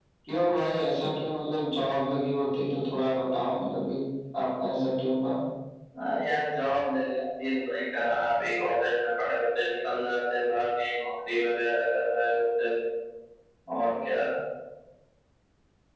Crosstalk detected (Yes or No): No